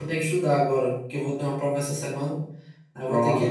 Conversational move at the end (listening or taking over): taking over